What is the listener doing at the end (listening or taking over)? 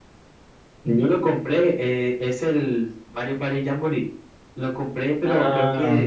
listening